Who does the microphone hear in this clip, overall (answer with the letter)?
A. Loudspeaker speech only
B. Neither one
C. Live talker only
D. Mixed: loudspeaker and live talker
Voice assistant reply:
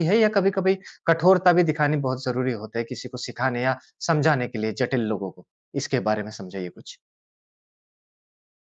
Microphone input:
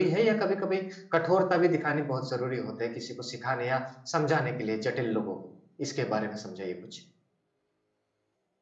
A